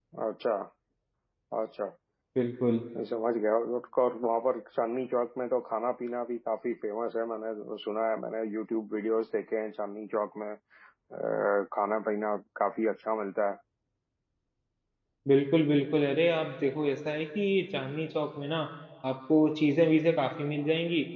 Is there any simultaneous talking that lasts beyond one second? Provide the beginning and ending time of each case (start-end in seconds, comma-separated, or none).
none